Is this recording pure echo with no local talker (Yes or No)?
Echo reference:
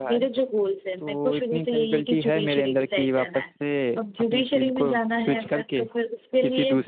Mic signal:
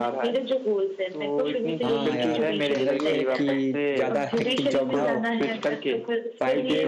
No